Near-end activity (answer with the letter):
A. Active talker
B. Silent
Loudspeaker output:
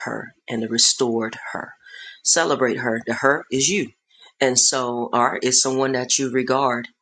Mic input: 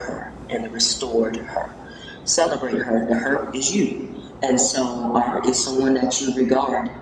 B